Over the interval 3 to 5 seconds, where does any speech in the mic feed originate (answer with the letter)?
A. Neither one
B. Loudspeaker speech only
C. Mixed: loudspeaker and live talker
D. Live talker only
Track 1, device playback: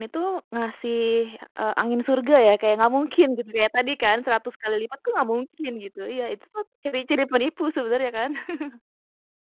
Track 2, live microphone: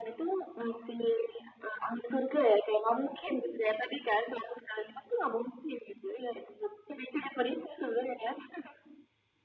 B